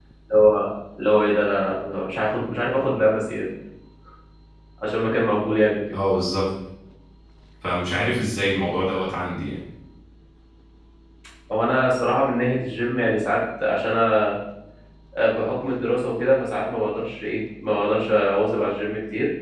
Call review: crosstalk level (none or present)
none